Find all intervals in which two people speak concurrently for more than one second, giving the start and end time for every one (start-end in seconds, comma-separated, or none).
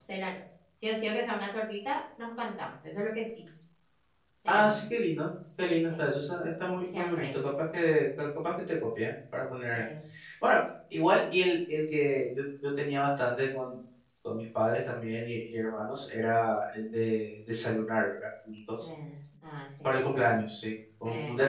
none